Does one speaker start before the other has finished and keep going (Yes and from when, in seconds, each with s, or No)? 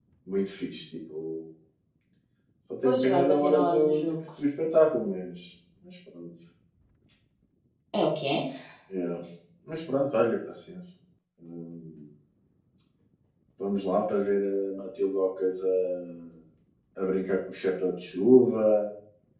Yes, from 2.8 s